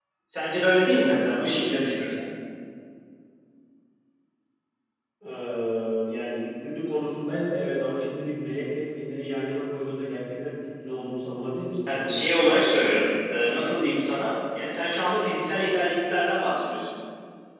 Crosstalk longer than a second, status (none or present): none